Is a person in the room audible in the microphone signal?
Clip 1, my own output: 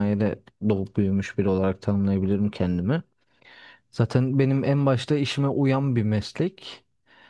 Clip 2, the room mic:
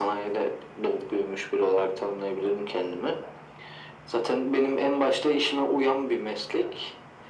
No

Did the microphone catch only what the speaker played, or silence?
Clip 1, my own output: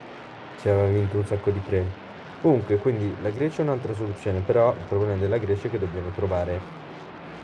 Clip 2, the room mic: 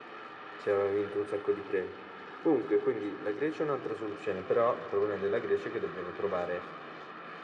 Yes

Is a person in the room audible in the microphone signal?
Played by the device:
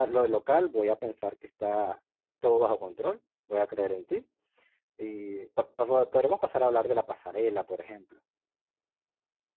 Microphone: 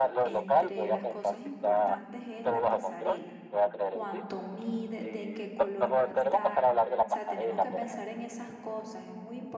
Yes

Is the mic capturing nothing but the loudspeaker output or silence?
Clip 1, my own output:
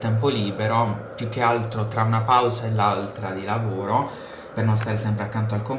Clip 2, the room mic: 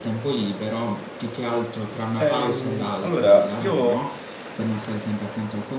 No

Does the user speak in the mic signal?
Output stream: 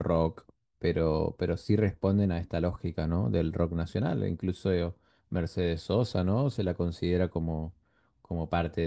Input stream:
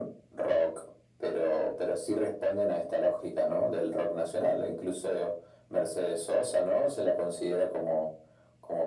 No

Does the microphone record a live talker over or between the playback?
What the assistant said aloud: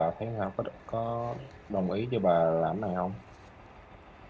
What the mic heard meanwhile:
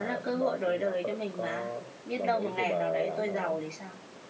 Yes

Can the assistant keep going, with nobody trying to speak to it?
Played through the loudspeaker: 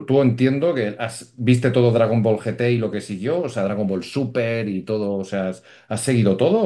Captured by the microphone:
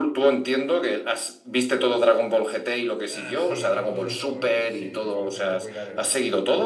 No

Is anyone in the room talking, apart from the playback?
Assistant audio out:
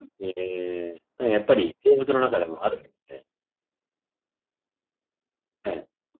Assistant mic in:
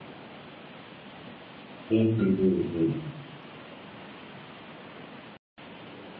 Yes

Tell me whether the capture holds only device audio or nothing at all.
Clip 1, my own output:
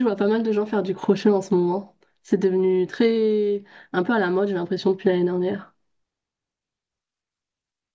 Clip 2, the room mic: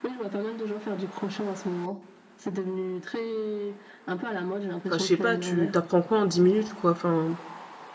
No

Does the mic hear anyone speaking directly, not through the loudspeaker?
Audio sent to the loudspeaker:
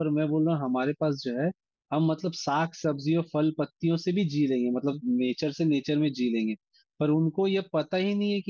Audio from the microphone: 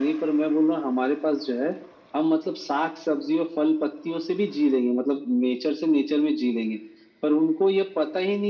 No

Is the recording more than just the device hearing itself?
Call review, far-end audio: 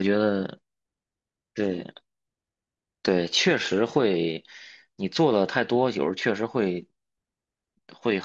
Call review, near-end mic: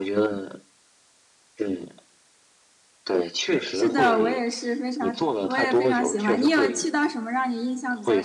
Yes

